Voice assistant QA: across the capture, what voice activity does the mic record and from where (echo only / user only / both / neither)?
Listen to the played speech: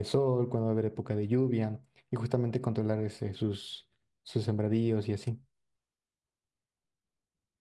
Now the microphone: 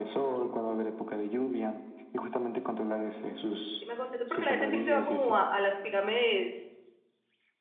both